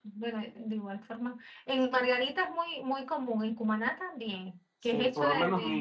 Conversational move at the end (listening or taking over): taking over